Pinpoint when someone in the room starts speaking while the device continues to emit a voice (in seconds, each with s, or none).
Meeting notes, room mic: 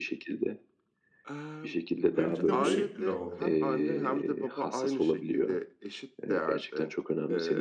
2.2 s